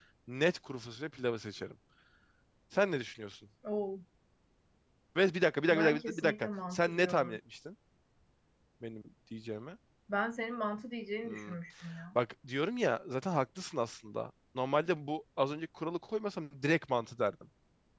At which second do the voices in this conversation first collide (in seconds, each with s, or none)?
5.7 s